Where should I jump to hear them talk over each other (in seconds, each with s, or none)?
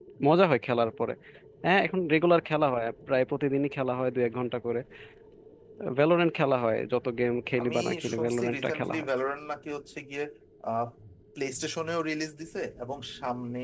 7.6 s